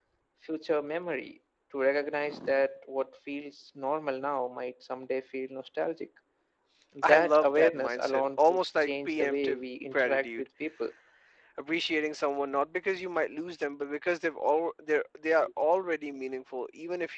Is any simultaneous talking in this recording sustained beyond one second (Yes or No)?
Yes